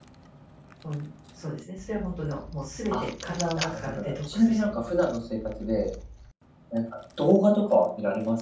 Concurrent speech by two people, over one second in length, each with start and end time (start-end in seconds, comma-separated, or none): 3.6-4.8